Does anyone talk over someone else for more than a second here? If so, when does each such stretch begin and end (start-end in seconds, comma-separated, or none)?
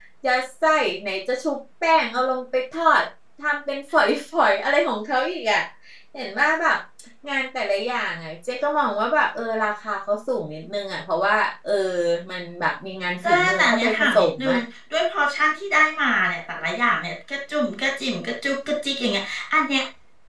13.2-14.6